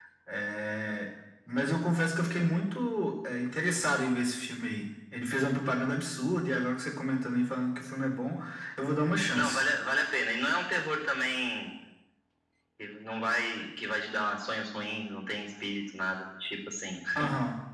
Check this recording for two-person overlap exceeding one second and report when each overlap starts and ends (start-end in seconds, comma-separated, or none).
none